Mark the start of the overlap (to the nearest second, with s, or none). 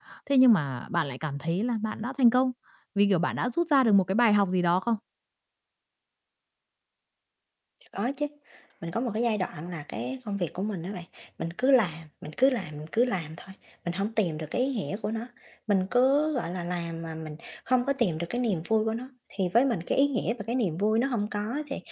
none